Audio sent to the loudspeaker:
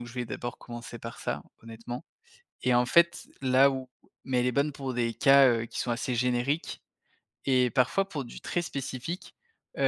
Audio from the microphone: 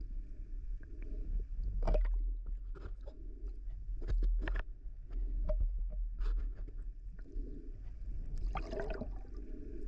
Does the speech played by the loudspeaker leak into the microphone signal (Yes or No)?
No